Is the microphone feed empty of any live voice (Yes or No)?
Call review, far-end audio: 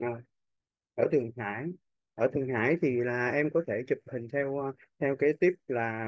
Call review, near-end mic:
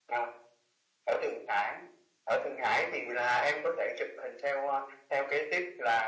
Yes